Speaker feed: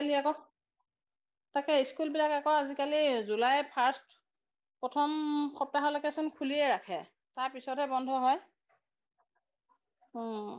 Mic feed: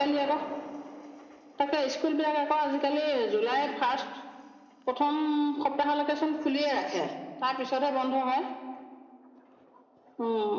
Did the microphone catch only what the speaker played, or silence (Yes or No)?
Yes